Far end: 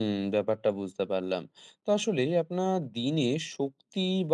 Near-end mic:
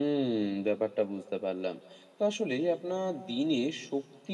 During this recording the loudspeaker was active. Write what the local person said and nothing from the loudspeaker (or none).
none